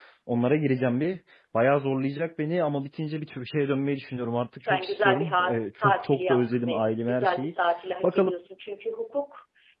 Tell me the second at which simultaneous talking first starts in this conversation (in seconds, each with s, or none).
4.6 s